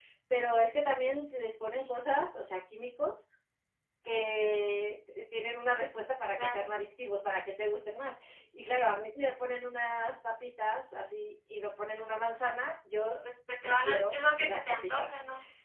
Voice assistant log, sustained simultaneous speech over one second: present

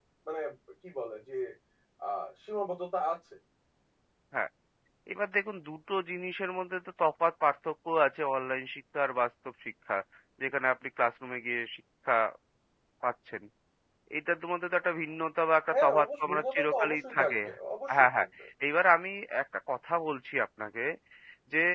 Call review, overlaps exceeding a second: present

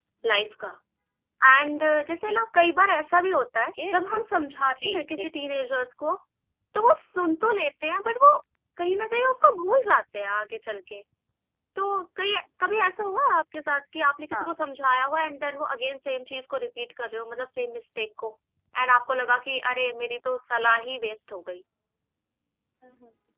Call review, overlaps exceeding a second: none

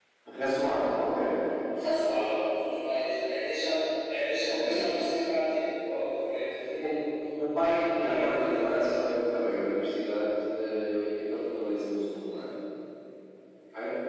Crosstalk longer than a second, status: present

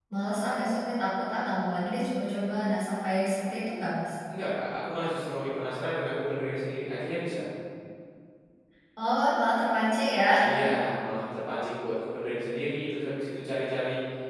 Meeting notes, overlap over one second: none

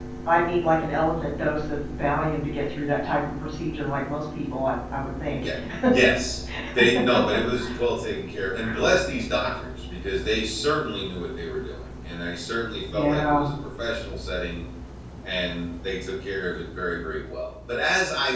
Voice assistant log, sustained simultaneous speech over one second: none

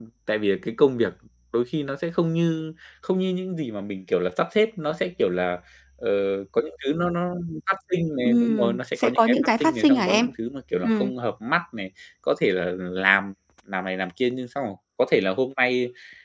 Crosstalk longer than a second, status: present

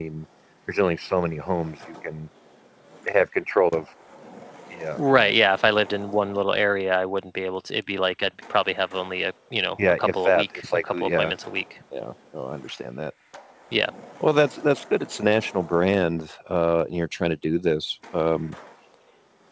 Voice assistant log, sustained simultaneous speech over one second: present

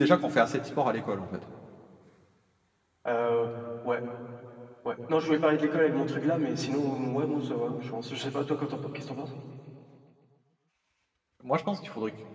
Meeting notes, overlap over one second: none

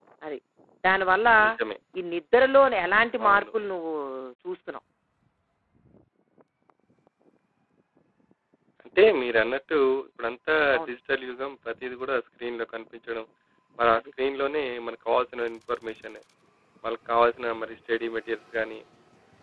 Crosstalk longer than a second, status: none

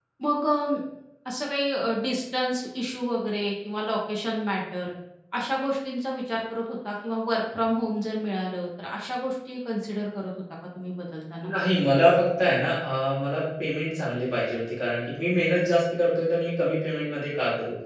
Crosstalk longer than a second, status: none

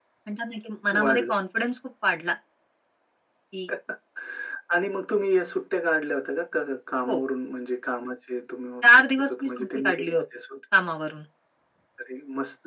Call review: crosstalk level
present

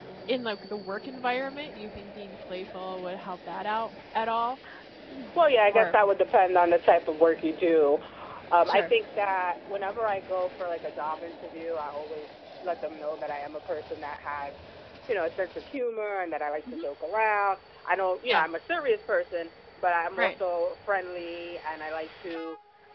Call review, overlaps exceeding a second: none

